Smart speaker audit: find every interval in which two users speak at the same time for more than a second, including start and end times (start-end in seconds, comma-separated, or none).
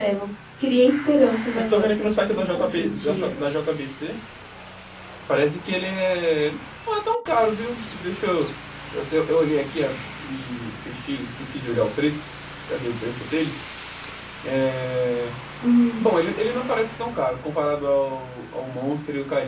1.5-3.4